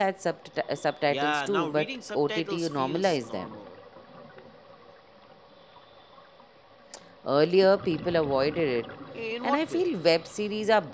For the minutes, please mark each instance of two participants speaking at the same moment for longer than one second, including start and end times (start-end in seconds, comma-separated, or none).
1.1-3.5